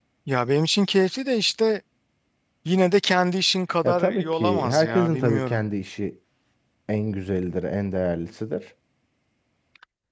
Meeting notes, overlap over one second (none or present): present